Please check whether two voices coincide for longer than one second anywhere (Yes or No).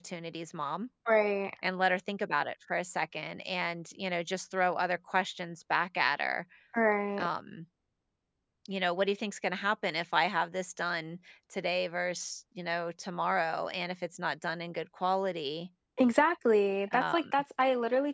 No